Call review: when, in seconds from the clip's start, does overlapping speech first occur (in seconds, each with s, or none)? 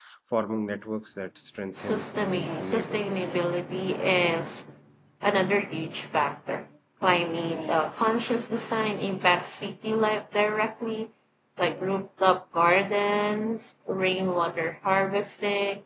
1.8 s